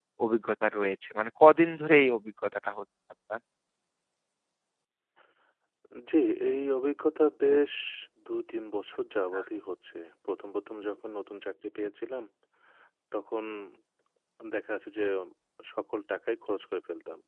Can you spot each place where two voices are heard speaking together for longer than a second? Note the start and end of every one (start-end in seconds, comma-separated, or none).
none